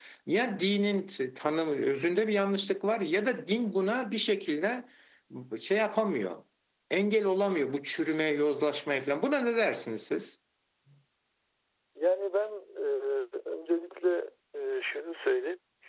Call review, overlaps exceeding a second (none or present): none